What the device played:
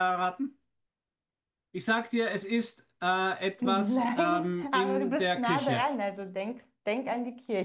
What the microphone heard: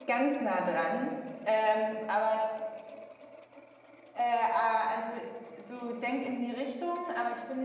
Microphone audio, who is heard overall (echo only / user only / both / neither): user only